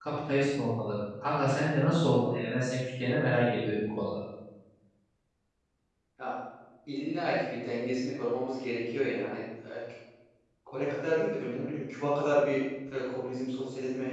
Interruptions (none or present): none